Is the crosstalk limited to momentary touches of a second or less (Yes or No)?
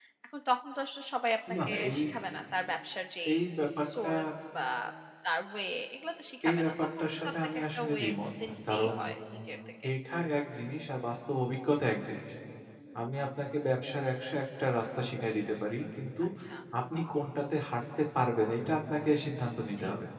No